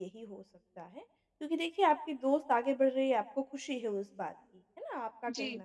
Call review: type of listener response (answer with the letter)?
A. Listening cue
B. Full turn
A